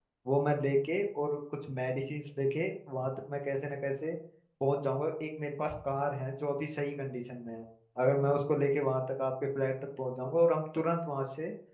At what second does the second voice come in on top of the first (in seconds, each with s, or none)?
none